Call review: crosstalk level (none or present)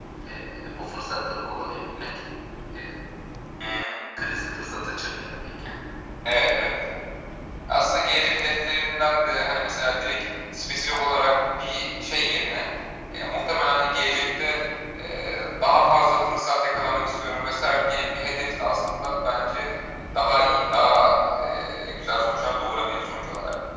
none